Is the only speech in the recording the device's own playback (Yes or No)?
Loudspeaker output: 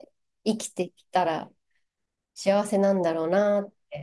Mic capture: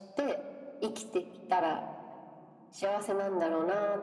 Yes